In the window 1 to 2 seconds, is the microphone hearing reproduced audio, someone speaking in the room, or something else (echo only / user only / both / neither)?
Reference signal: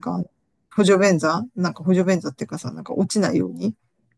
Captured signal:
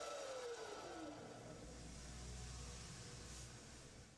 neither